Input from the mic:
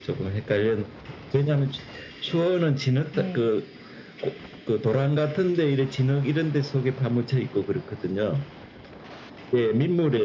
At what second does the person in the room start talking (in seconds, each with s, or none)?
3.1 s